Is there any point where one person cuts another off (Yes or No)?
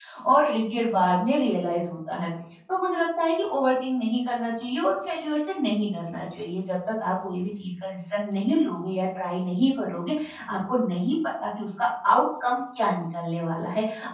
No